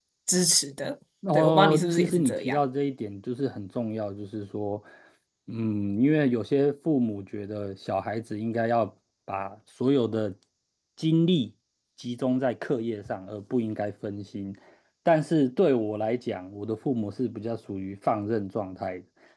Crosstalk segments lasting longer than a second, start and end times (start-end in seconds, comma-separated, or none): 1.3-2.6